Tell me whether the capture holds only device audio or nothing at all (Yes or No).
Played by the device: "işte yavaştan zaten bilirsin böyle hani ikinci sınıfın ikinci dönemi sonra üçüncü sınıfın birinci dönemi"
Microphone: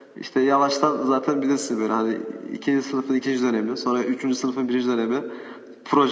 Yes